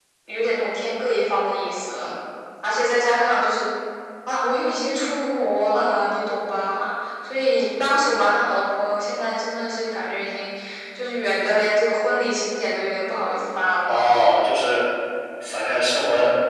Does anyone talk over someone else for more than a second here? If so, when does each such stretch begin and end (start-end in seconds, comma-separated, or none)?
none